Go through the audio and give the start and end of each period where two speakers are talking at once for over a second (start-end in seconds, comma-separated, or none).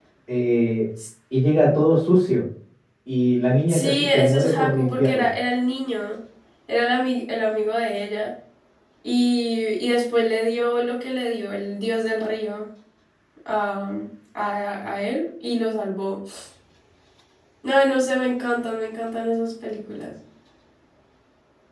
3.7-5.3